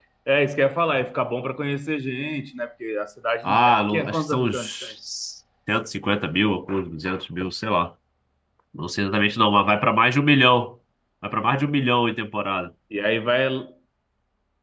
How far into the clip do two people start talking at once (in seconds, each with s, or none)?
3.4 s